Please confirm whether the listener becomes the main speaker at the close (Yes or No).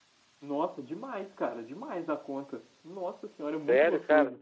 Yes